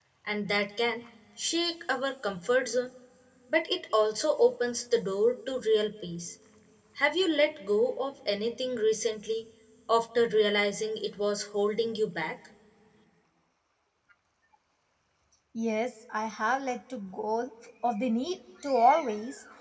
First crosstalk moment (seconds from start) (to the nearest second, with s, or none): none